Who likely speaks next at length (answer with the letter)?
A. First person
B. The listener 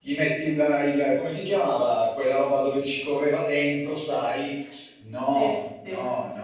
A